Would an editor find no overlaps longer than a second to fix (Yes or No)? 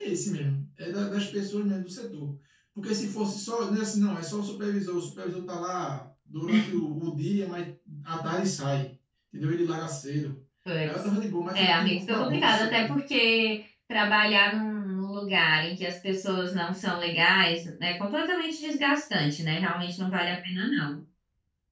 No